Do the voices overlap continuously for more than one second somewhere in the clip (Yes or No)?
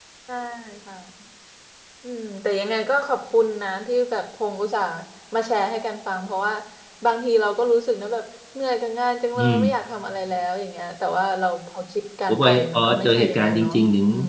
Yes